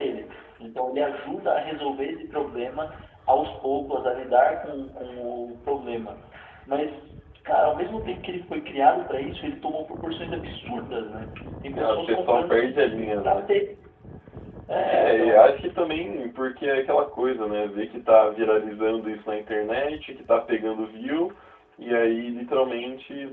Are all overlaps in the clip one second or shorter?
No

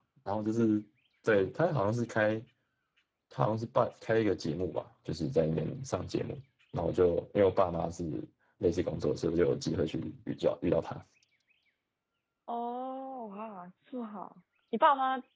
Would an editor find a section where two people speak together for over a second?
No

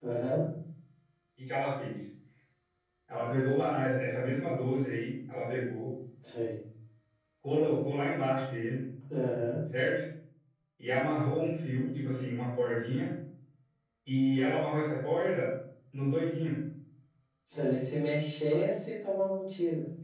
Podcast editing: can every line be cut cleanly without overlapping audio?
Yes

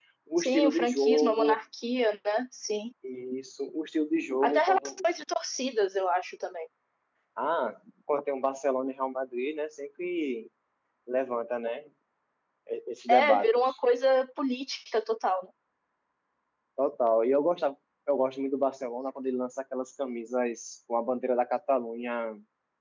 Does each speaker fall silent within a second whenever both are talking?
No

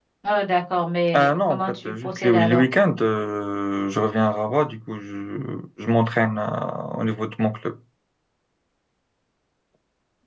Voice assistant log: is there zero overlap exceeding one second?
No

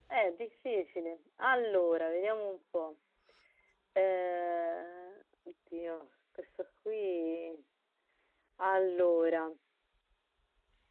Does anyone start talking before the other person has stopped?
No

